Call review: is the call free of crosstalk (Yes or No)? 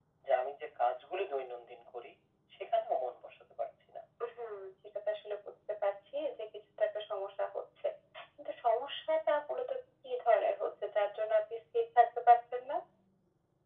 Yes